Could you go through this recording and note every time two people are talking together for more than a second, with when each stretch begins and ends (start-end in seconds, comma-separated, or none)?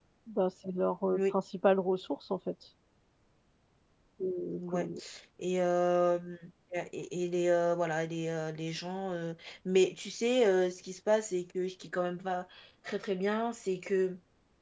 none